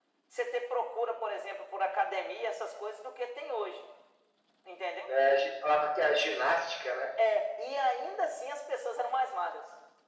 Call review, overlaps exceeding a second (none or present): none